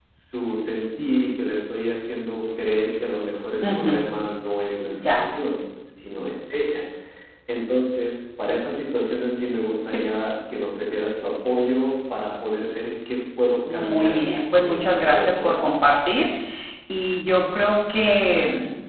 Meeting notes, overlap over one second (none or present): present